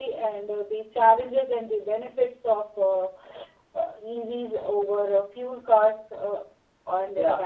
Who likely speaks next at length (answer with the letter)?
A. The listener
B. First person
A